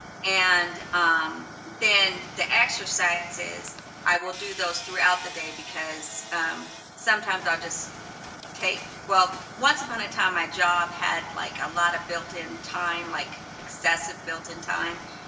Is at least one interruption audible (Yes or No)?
No